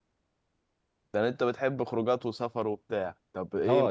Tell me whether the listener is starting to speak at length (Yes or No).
Yes